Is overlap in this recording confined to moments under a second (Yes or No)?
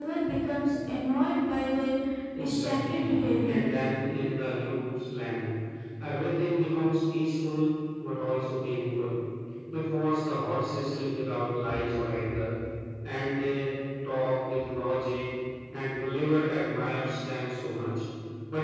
No